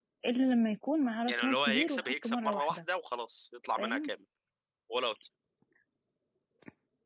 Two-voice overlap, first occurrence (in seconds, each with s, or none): 1.3 s